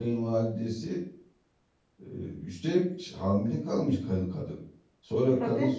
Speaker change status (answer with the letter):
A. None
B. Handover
A